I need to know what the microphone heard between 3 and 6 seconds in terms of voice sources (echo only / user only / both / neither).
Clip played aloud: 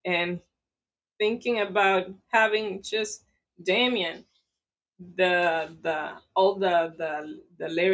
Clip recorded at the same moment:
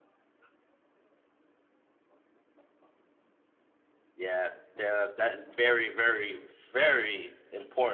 user only